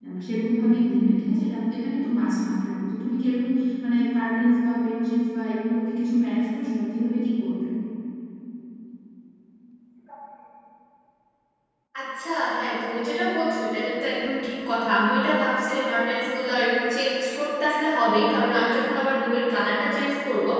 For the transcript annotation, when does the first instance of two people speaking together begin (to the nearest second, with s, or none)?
none